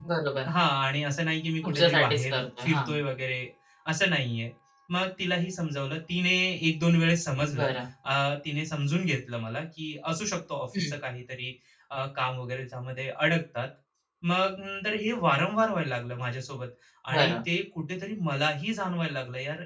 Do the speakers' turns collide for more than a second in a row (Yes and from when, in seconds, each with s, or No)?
Yes, from 1.6 s